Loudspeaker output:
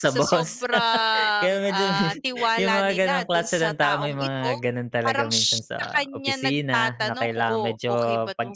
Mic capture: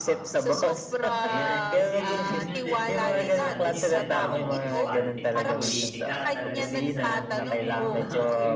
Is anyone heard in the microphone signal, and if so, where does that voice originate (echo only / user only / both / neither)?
both